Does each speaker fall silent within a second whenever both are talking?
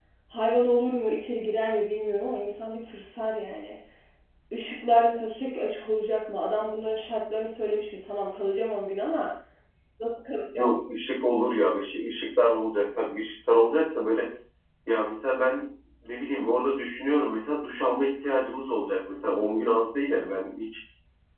Yes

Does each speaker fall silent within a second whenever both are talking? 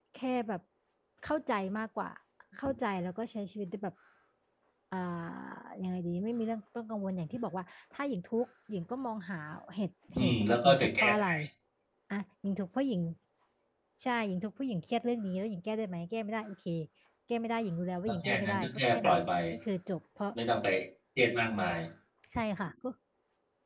No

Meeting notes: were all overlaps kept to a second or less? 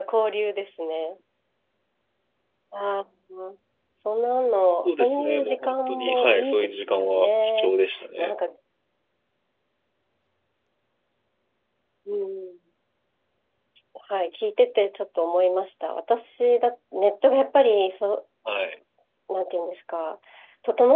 No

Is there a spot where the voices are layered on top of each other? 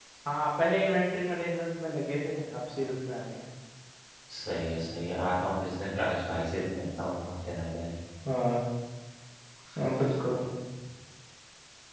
No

